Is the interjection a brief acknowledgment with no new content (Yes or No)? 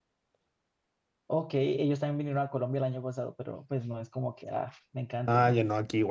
No